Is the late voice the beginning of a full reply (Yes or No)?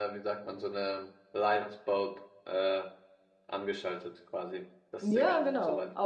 Yes